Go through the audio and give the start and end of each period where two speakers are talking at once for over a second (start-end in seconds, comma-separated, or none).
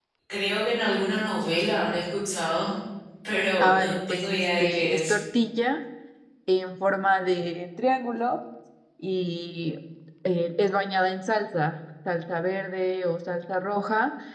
3.6-5.2